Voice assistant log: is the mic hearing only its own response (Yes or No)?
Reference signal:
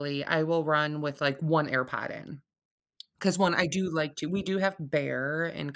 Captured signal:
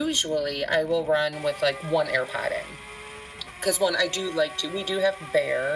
Yes